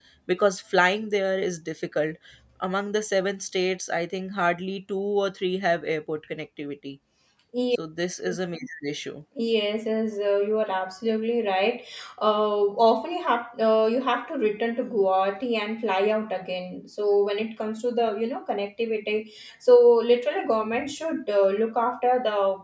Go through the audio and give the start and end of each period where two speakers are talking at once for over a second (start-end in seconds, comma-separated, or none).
none